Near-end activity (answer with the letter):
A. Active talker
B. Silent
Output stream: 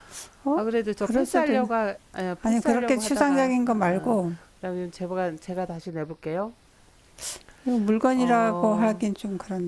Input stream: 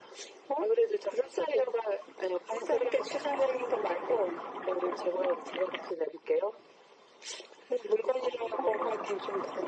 B